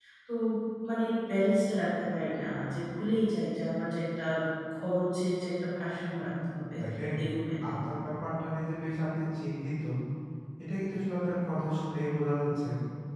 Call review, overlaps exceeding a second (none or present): none